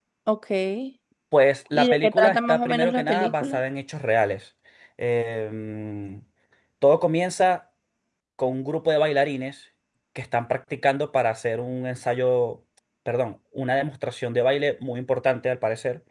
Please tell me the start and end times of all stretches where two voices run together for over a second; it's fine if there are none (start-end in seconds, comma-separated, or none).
1.7-3.6